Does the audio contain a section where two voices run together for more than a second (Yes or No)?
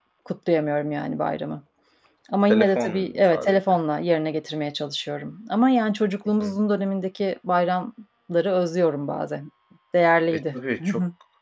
Yes